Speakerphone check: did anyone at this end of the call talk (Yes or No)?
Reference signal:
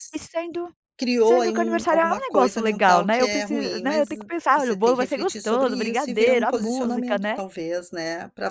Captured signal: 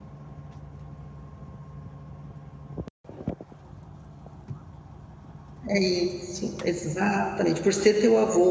Yes